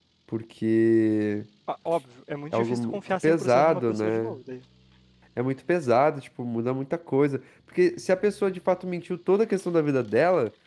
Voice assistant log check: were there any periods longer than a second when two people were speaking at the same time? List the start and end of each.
2.5-4.3

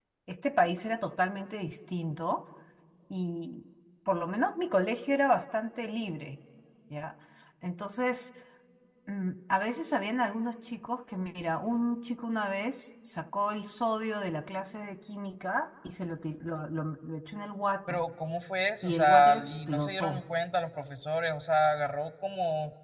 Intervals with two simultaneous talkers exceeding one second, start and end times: 18.8-20.2

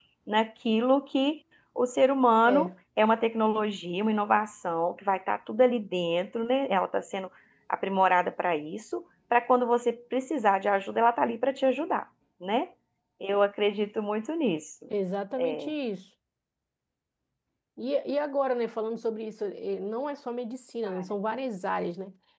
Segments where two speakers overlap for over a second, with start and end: none

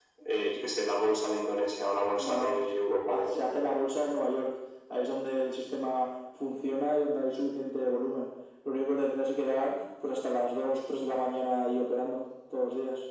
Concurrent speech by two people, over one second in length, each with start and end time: none

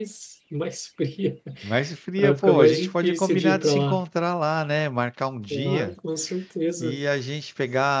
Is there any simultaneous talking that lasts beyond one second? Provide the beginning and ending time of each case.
2.2-4.0

